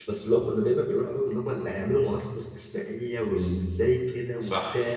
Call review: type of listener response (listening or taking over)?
taking over